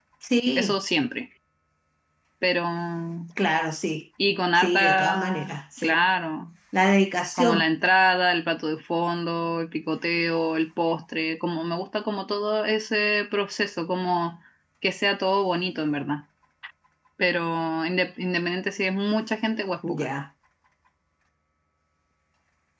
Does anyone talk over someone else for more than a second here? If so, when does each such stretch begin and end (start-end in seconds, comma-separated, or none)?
4.6-6.0